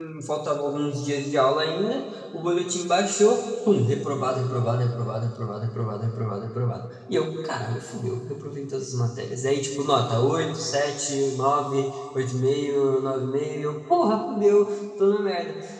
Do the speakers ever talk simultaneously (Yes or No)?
No